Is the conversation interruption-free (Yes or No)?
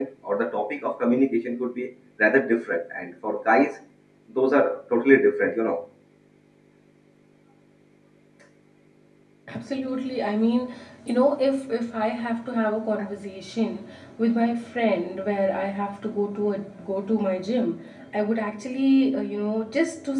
Yes